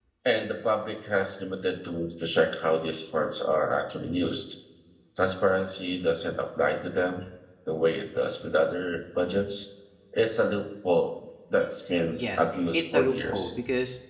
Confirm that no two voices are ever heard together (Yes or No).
No